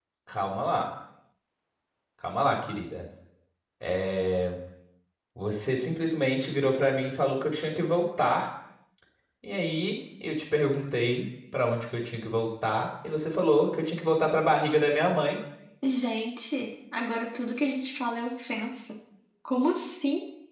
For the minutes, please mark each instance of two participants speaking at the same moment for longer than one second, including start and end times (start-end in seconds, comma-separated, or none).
none